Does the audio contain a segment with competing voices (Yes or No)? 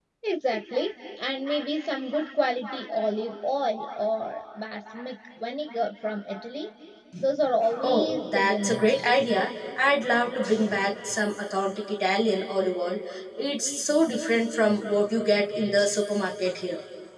Yes